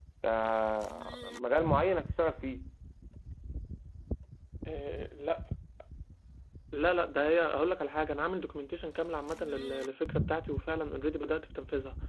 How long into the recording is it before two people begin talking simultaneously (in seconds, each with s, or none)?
none